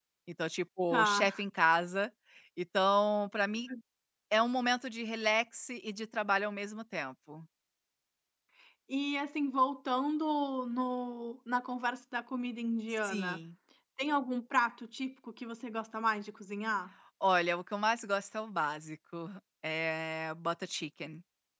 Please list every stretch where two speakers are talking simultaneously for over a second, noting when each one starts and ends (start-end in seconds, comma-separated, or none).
none